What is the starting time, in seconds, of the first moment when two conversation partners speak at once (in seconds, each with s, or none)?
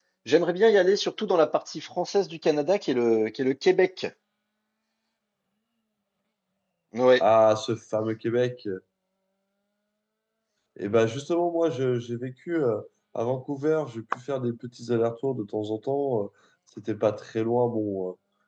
none